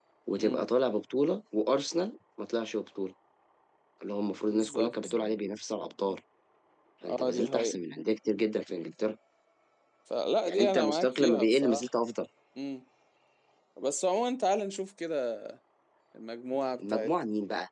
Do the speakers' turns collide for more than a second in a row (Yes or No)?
Yes